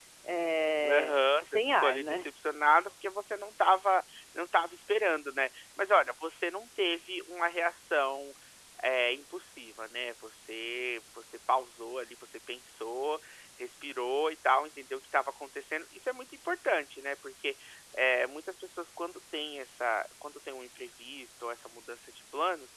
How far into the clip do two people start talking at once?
1 s

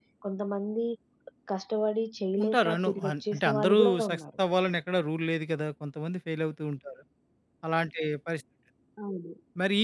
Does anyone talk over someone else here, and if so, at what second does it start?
2 s

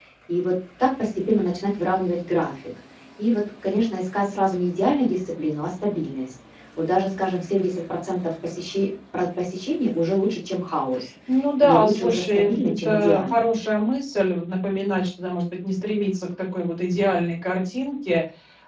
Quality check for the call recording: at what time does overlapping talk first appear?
12 s

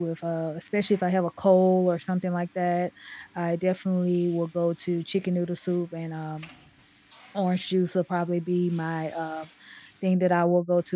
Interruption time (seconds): none

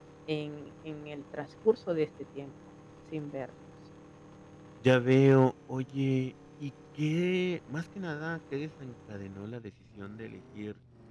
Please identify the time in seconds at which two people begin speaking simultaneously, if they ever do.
none

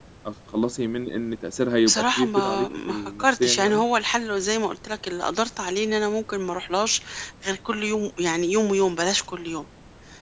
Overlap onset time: 2 s

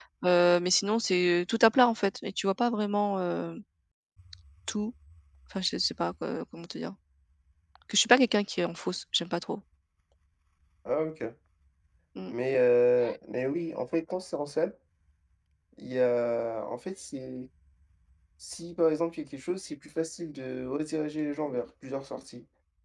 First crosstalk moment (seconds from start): none

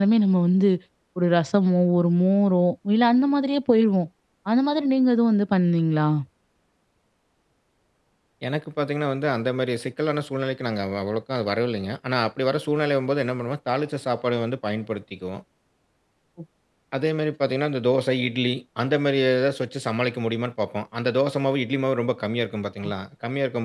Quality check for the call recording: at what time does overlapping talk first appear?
none

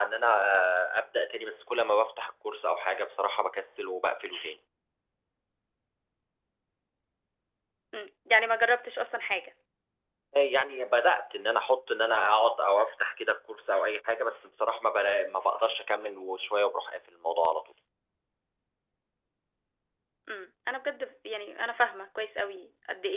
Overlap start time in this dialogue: none

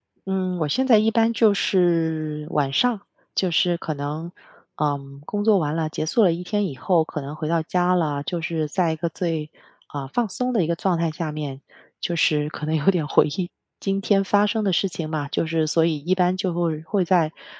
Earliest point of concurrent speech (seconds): none

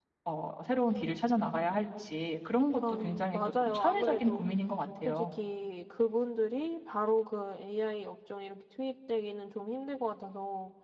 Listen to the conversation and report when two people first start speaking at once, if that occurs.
3 s

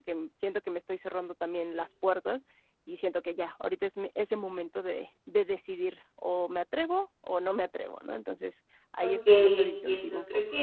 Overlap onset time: 9 s

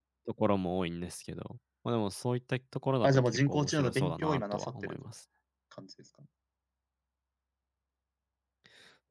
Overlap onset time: 3 s

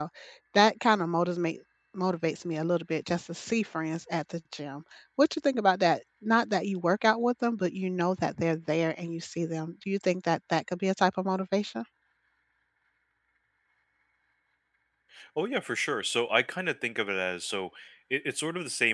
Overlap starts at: none

